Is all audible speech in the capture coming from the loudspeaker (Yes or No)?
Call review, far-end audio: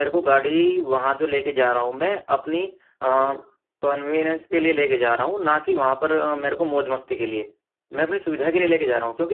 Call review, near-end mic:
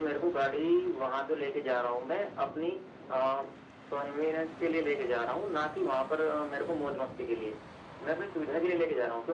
Yes